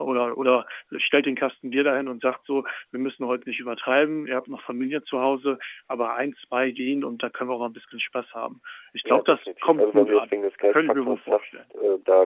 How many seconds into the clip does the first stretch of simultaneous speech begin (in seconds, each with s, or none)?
9.1 s